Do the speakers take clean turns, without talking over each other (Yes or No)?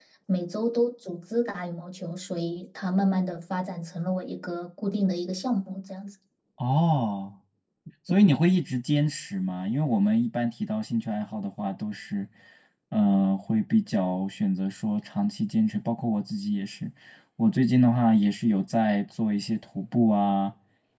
Yes